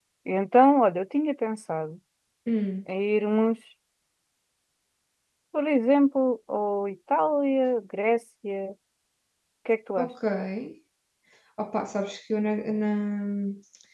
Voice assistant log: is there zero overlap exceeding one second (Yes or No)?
Yes